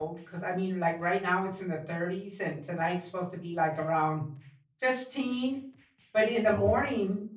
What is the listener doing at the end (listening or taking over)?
listening